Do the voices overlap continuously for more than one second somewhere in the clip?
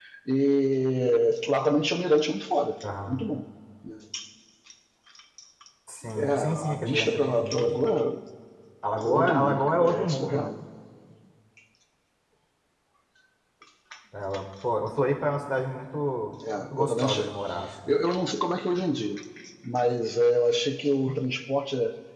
Yes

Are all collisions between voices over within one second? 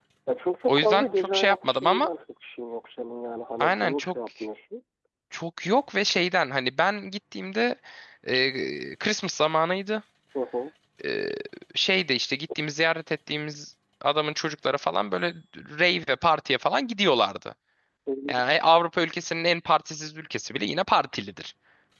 No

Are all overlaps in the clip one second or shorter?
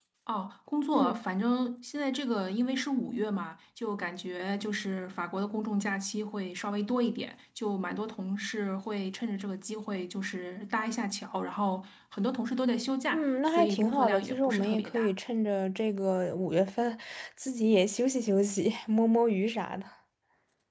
No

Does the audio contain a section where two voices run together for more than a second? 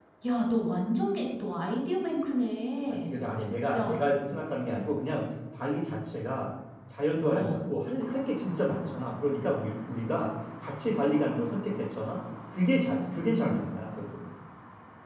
No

